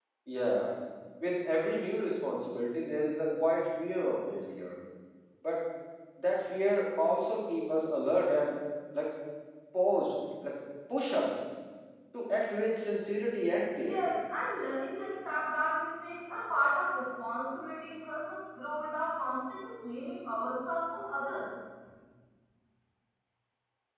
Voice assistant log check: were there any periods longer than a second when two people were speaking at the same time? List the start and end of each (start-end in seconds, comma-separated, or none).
none